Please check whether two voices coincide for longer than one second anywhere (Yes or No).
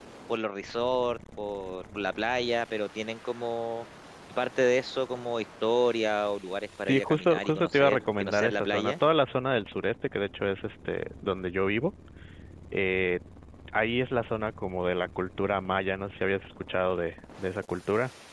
Yes